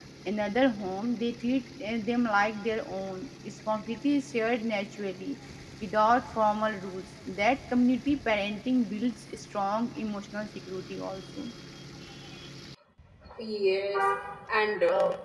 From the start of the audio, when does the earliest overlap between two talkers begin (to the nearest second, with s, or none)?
none